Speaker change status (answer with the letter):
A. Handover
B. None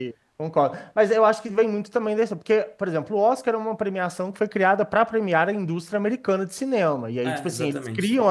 B